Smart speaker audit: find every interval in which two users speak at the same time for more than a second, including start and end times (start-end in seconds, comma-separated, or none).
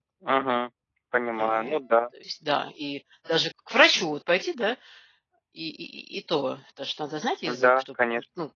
none